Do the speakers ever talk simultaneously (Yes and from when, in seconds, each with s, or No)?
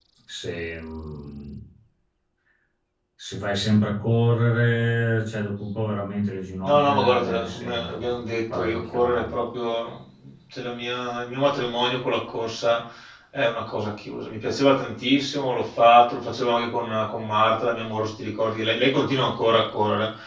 Yes, from 6.6 s